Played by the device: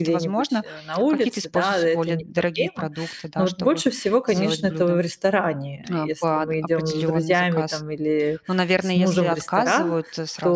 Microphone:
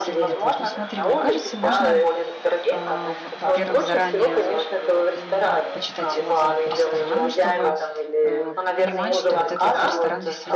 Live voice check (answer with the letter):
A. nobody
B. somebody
B